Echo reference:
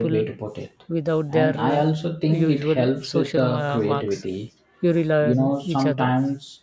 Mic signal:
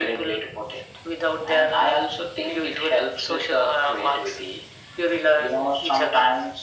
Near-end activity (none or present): none